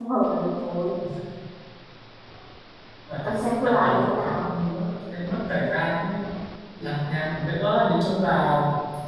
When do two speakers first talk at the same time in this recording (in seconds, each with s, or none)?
3.2 s